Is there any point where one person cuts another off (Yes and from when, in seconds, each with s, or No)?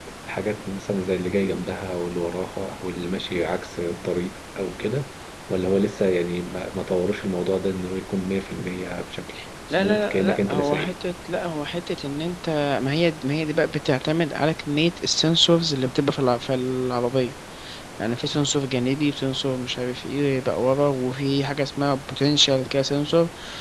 Yes, from 9.7 s